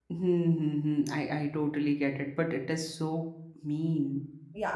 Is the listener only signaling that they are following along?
No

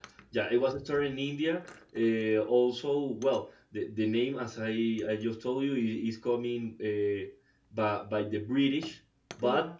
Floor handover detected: No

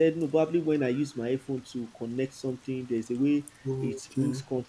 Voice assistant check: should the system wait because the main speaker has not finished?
Yes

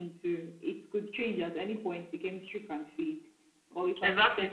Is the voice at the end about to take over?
Yes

